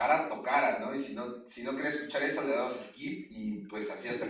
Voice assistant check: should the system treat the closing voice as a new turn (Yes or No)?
No